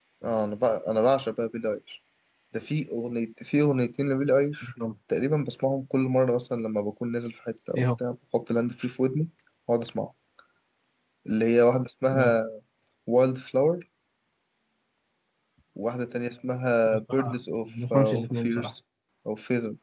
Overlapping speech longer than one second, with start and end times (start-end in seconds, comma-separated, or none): 16.9-18.7